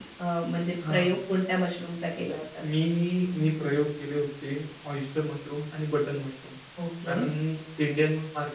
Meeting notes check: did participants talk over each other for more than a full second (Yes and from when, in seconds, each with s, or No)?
No